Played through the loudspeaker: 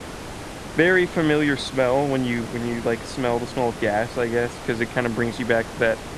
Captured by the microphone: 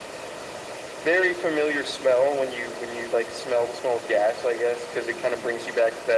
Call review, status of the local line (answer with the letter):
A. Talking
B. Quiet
B